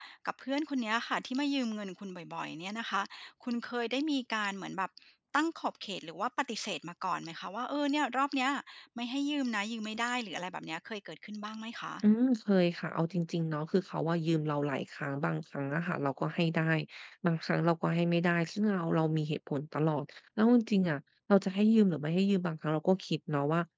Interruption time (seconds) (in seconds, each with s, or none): none